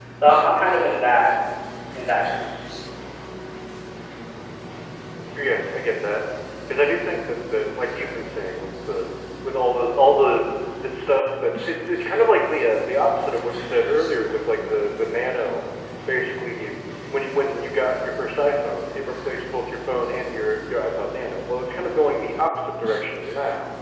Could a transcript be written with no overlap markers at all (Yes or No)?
Yes